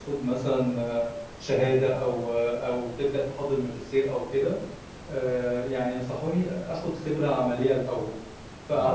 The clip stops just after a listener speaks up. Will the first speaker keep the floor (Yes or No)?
Yes